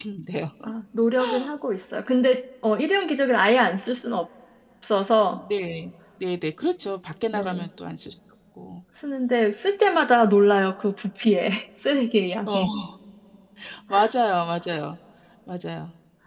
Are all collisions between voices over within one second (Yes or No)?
Yes